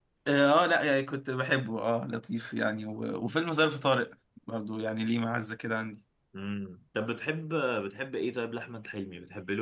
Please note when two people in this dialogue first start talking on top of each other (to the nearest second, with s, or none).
none